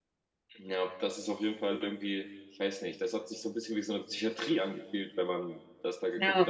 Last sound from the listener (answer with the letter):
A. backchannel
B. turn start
A